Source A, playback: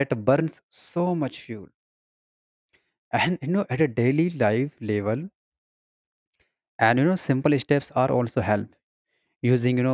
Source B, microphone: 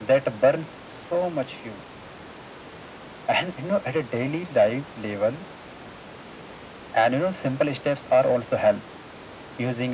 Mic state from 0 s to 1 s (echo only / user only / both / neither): echo only